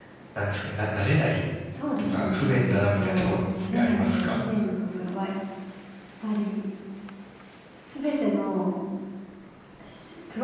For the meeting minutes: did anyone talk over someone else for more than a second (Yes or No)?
Yes